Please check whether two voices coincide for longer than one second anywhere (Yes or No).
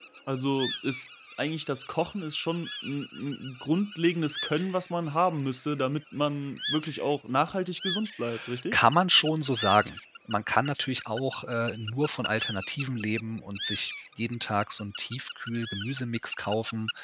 No